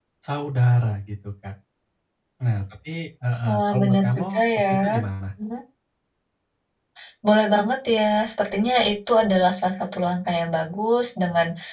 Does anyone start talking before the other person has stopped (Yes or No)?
Yes